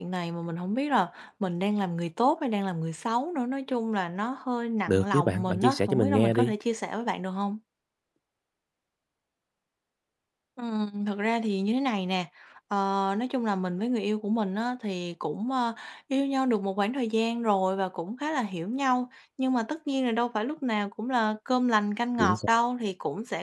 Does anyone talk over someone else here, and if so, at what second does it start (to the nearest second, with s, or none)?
5 s